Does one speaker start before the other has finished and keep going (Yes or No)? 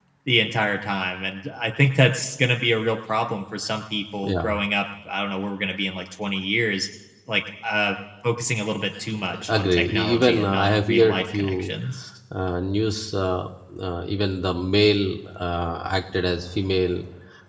Yes